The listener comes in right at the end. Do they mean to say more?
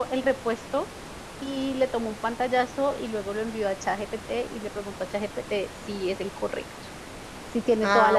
No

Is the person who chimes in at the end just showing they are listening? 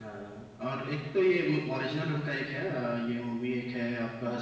Yes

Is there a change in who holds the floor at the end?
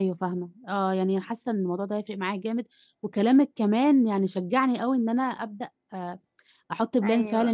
No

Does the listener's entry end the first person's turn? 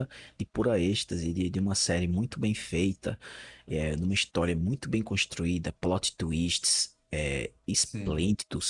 No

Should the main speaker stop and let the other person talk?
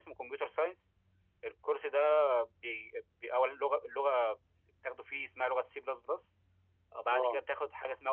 No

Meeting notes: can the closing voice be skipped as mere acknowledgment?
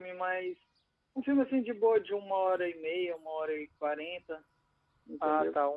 No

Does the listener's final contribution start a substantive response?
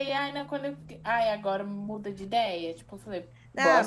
Yes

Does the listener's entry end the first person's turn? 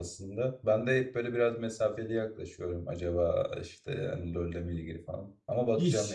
Yes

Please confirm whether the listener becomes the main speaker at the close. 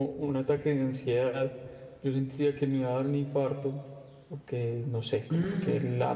No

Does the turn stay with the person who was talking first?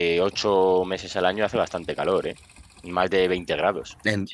Yes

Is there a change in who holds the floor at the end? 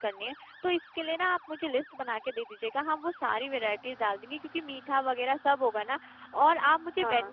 No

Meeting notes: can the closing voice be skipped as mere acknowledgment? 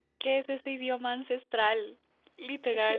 No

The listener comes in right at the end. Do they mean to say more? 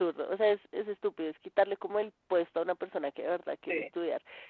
No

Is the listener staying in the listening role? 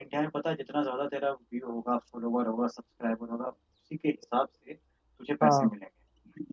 Yes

